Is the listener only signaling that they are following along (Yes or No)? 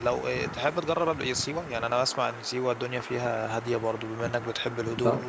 Yes